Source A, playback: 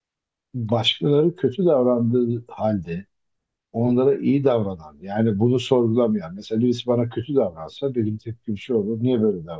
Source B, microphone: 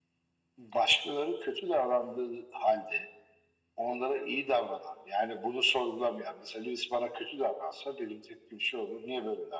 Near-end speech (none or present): none